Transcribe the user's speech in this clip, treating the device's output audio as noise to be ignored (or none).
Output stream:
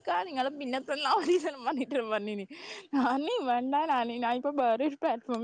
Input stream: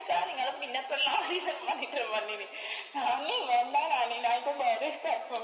none